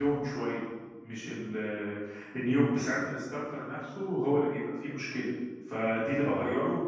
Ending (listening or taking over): listening